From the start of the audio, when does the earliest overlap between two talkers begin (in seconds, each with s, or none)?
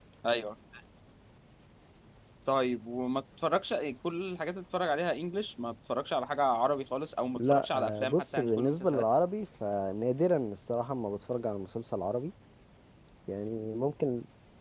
7.3 s